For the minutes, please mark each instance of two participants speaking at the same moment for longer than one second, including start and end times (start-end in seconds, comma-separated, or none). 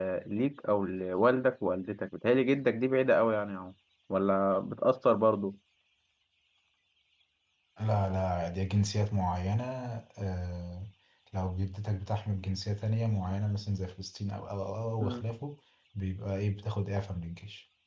none